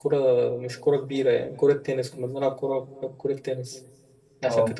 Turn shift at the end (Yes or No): No